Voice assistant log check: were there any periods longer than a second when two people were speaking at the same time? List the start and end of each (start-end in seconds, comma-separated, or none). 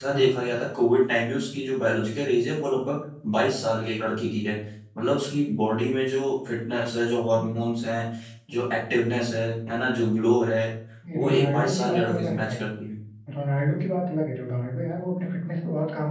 11.2-12.5